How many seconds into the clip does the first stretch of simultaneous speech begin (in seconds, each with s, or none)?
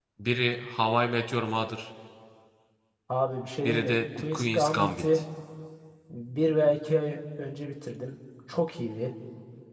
3.6 s